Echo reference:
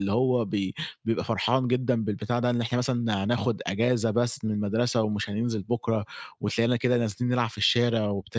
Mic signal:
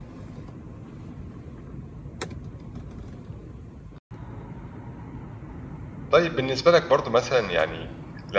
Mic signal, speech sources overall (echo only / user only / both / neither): user only